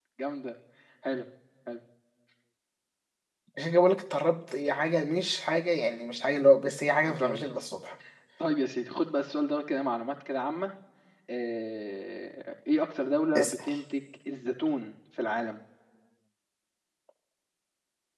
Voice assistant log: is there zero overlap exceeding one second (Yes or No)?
Yes